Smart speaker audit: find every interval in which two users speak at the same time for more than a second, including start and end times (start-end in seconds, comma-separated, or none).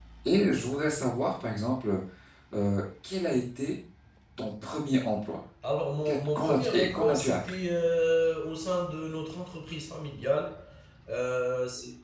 6.0-7.4